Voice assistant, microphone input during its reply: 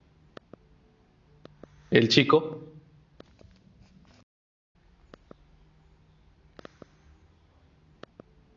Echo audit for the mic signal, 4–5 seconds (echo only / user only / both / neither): neither